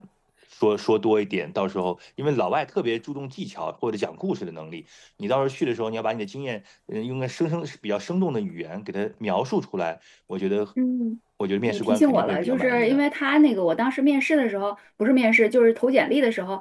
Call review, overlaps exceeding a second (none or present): present